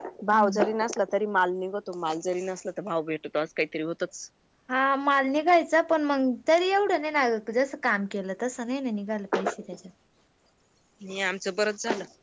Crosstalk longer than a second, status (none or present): none